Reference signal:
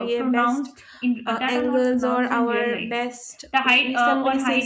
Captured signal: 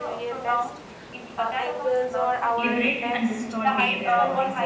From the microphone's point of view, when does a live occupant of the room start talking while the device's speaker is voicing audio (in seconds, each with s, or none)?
2.5 s